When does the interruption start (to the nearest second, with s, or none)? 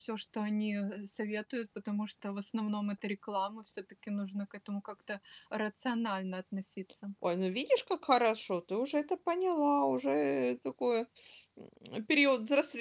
none